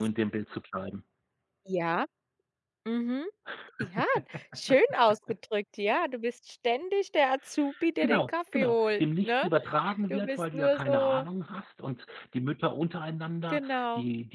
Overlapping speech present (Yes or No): Yes